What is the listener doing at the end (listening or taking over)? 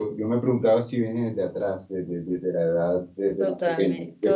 taking over